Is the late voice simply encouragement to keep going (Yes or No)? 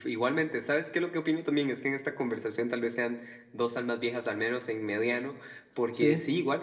Yes